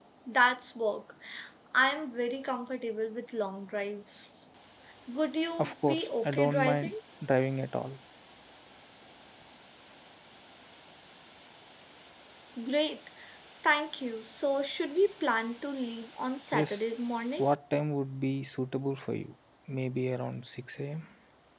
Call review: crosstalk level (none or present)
present